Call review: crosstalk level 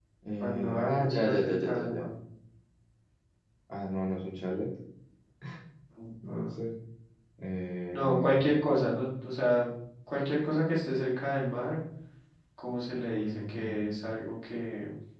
present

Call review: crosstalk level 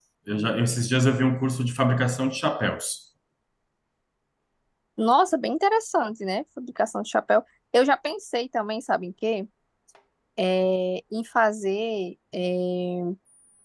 none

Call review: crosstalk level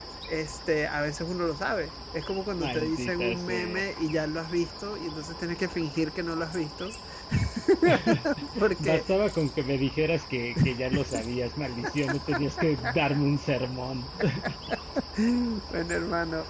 present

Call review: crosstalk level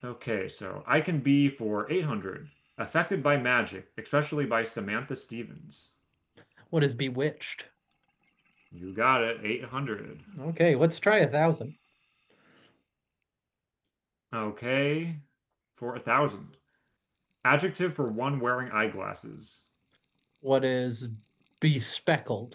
none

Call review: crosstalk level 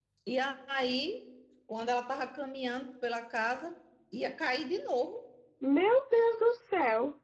none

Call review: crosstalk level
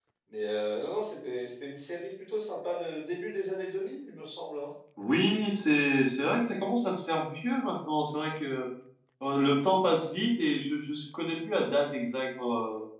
none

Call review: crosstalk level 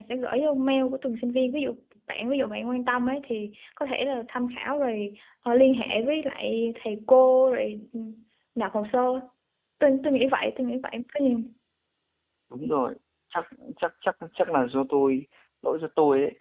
none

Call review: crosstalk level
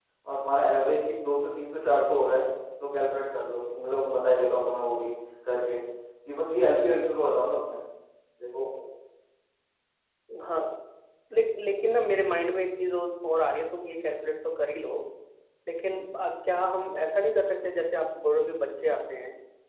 none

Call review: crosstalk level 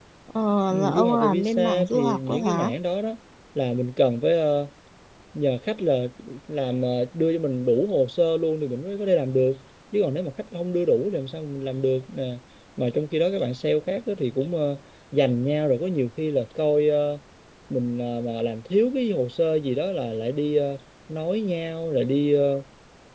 present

